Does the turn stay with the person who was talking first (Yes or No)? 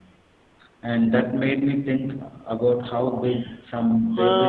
No